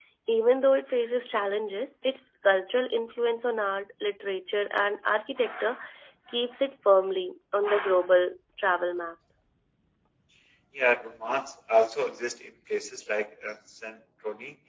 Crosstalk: none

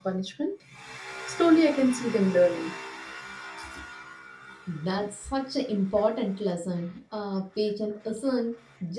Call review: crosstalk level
none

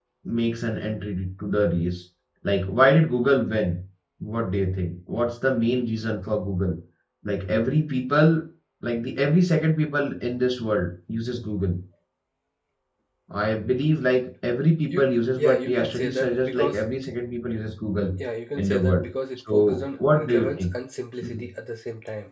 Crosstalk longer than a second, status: present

